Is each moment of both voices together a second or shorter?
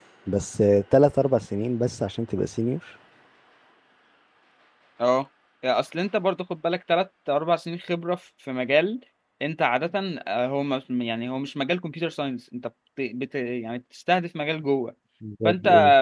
Yes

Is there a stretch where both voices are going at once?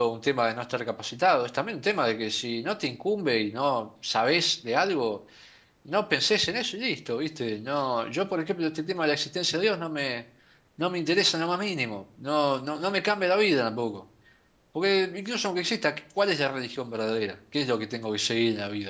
No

